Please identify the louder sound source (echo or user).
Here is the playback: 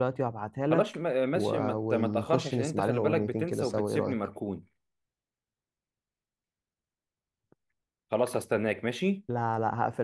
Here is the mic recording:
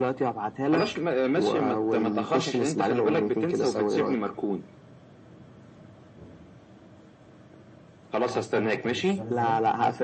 echo